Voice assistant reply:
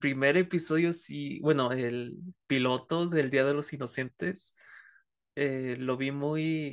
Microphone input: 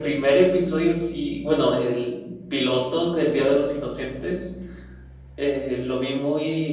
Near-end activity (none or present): none